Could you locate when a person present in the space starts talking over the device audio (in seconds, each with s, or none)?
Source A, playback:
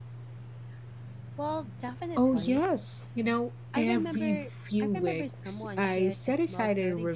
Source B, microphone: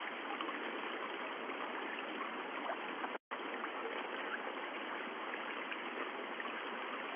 none